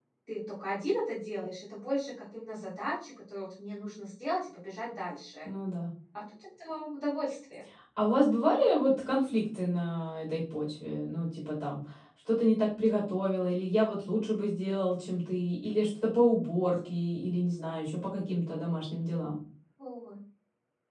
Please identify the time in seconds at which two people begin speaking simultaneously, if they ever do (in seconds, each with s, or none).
none